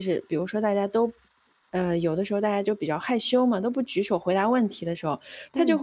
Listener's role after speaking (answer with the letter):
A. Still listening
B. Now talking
A